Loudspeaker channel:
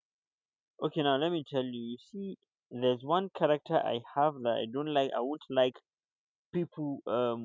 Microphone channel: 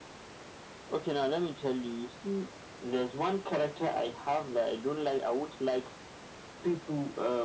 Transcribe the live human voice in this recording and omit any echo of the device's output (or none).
none